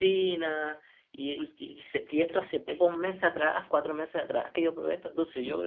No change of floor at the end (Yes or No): No